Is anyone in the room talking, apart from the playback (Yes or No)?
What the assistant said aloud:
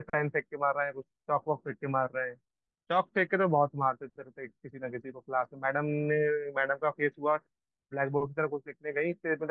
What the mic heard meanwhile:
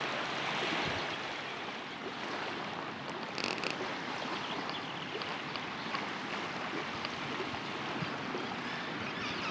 No